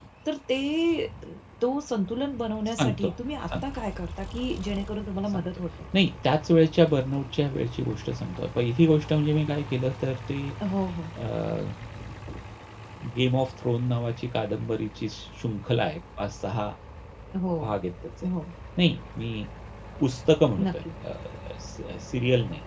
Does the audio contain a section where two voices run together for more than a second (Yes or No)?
No